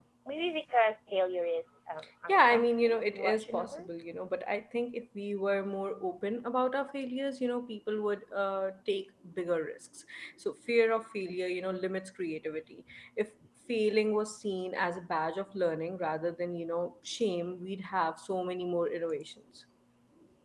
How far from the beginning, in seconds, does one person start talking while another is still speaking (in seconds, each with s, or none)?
2.3 s